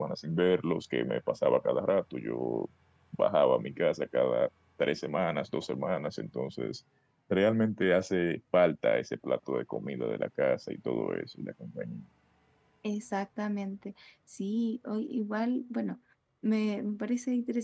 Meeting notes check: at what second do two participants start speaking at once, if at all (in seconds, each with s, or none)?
none